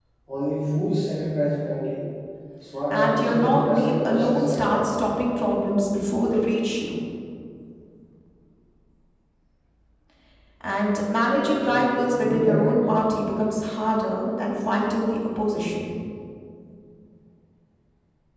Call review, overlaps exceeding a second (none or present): present